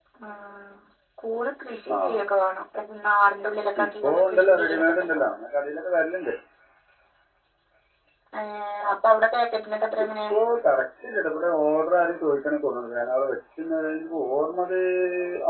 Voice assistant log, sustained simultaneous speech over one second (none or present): present